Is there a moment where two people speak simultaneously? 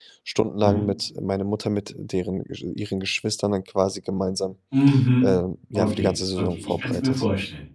Yes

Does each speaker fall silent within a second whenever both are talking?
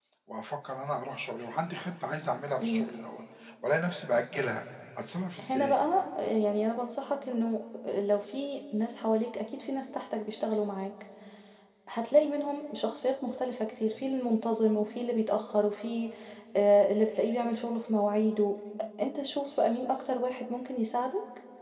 Yes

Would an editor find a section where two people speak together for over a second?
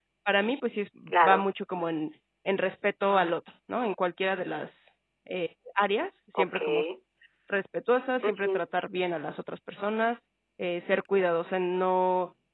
No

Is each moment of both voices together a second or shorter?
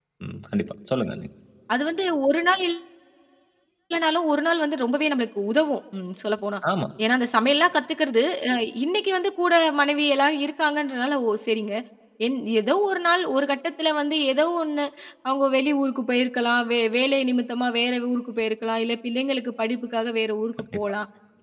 Yes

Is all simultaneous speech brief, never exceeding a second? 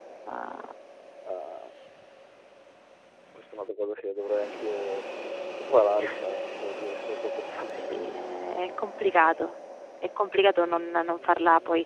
No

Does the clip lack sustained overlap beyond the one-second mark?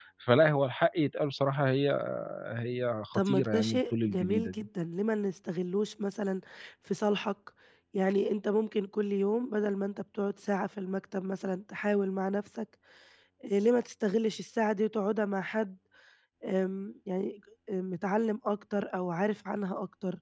No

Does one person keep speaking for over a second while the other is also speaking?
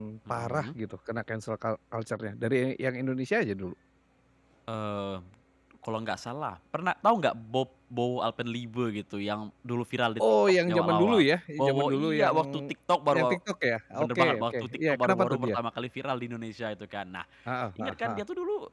Yes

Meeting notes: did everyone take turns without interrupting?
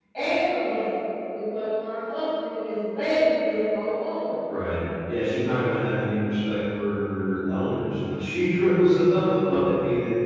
Yes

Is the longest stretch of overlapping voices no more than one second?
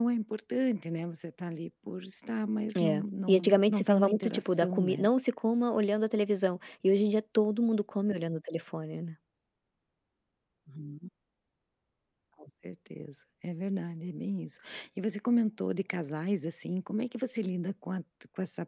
No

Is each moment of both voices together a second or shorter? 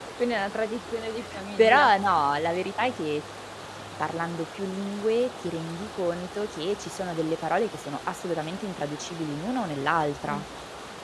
Yes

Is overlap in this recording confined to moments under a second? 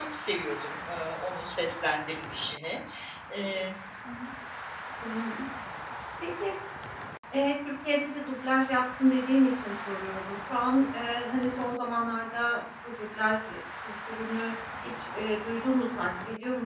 Yes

